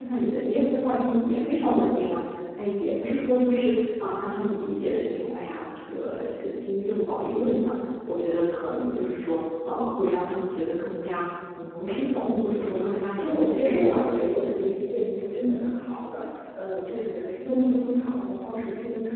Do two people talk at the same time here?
Yes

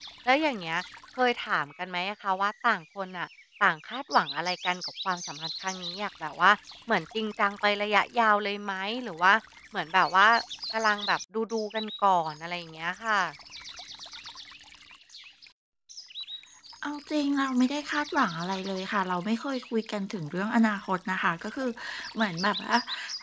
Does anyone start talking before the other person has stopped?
No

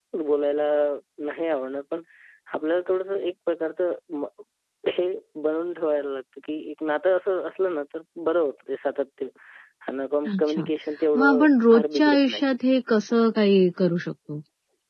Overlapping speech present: Yes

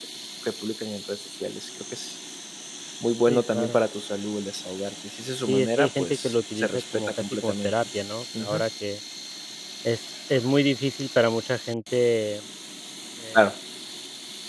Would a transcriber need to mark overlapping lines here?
Yes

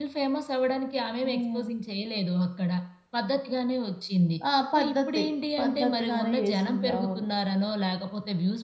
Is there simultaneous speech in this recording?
Yes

